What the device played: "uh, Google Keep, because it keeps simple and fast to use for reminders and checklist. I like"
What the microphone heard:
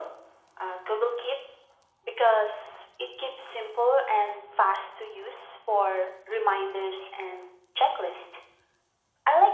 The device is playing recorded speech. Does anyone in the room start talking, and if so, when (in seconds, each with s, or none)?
none